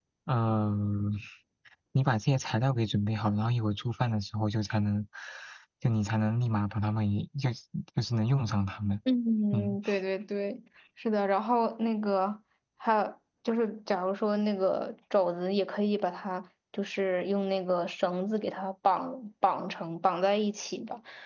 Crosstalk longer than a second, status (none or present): none